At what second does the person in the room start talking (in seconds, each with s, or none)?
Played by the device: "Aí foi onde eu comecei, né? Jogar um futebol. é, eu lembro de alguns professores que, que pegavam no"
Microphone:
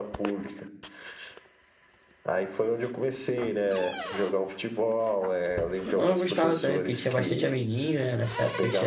5.8 s